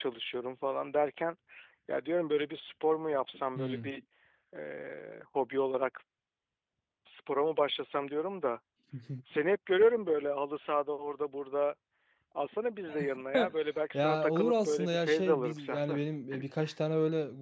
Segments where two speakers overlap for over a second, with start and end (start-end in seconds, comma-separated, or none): 13.9-16.0